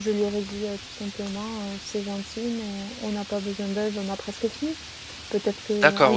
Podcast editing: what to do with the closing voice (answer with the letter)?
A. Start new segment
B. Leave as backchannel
B